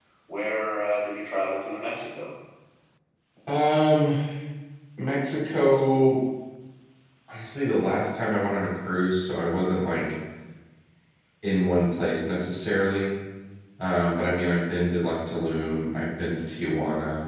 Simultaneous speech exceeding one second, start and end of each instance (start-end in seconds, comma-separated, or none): none